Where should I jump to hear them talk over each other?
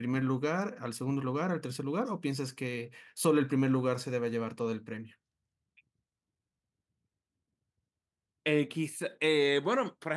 none

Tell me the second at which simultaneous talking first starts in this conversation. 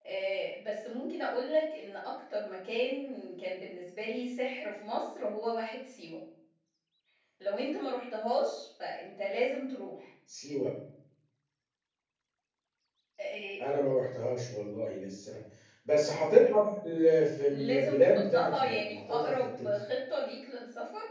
17.5 s

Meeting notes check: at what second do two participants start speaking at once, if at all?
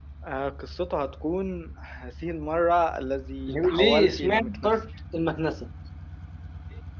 3.5 s

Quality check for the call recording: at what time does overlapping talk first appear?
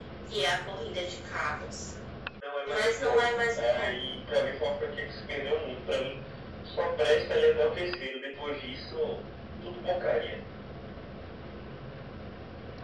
2.6 s

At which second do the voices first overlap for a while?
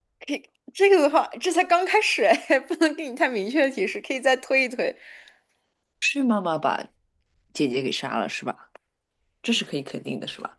none

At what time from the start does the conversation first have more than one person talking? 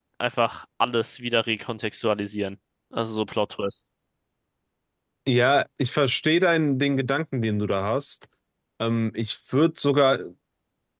none

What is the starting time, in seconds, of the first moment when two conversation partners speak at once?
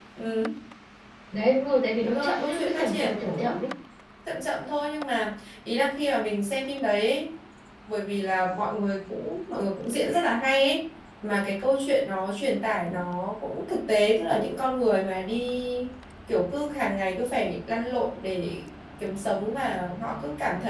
2.0 s

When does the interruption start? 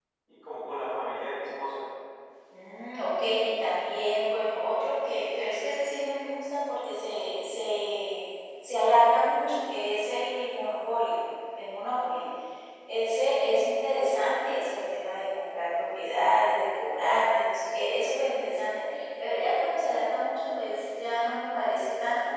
none

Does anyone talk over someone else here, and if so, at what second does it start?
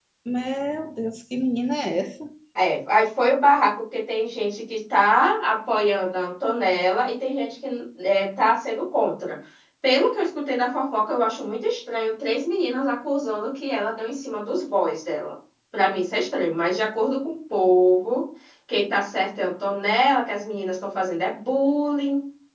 none

